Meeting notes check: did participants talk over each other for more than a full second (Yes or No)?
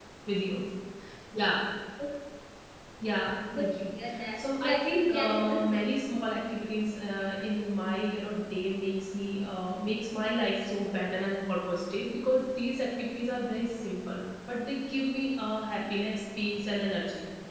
Yes